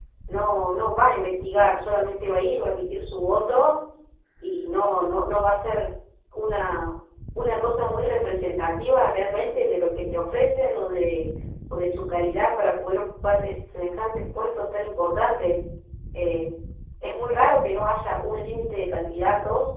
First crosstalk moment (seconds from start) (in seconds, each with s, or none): none